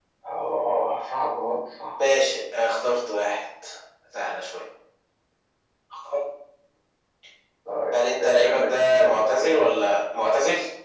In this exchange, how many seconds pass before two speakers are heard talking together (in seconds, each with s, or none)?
7.9 s